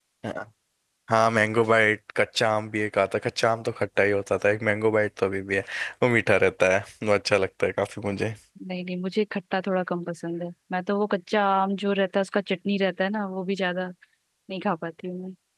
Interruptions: none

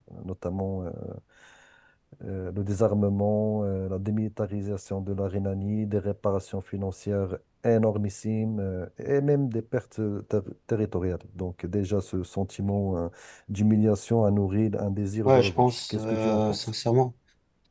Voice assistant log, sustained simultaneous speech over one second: present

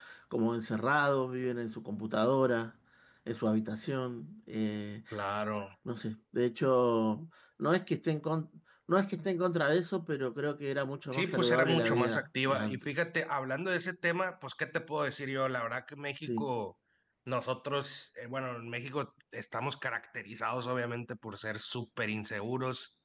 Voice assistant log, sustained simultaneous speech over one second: present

